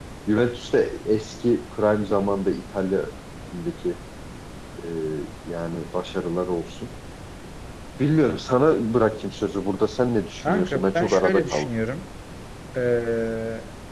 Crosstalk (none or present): present